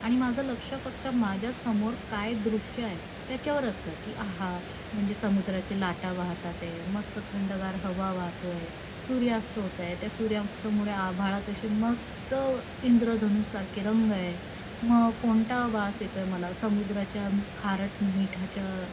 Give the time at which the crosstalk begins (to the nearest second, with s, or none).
none